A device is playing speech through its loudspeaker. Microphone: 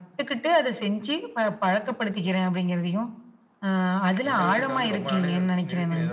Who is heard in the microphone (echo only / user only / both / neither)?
both